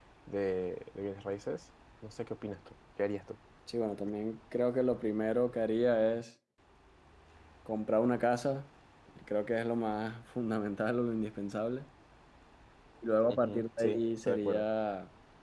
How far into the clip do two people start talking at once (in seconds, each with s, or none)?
13.3 s